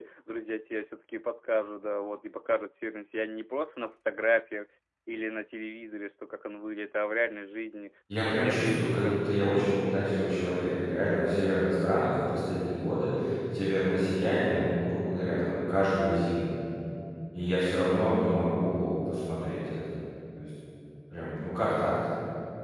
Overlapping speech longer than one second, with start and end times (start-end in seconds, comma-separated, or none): 8.2-9.6